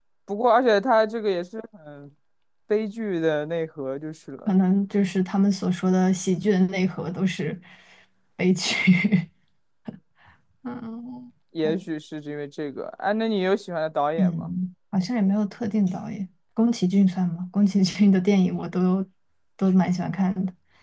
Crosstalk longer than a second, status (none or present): none